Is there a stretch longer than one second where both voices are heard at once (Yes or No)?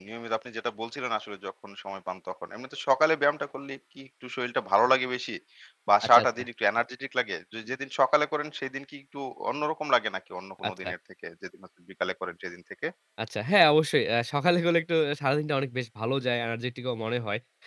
No